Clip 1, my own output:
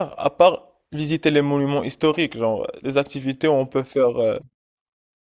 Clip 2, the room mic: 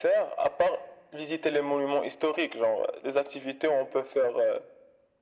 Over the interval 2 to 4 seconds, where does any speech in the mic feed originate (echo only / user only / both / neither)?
echo only